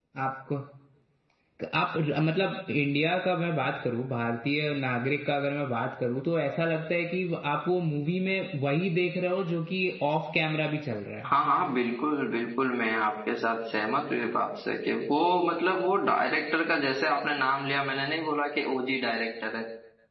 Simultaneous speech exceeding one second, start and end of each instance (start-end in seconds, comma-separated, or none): none